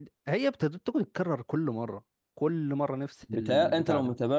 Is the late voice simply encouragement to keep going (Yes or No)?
No